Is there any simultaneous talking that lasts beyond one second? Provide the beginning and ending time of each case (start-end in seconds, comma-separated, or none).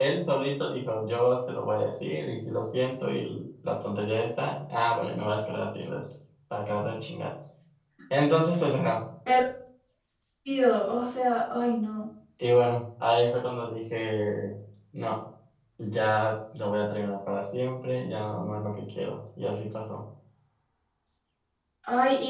none